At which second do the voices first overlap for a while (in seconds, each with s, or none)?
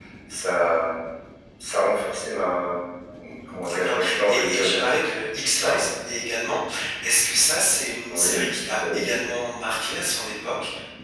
3.6 s